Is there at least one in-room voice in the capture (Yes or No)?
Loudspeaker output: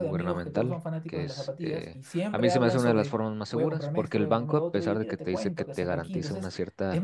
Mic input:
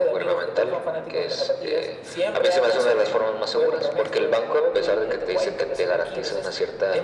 No